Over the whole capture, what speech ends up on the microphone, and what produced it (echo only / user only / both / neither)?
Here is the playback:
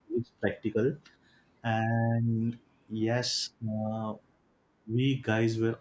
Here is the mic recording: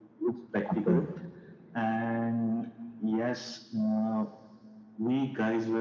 both